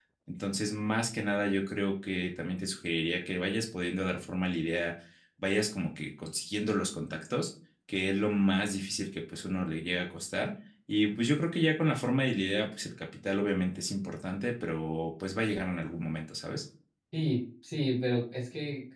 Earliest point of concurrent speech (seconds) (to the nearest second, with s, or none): none